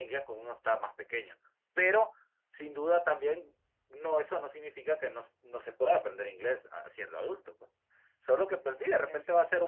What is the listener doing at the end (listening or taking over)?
listening